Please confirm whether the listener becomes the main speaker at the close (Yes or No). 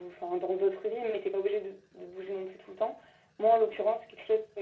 No